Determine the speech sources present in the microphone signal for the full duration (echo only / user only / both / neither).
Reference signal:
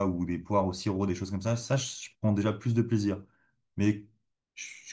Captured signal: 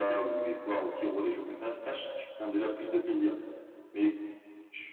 echo only